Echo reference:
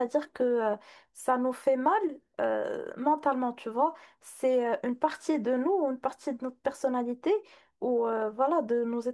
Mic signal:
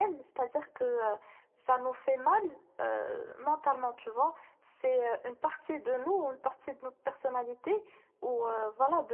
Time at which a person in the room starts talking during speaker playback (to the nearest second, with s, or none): none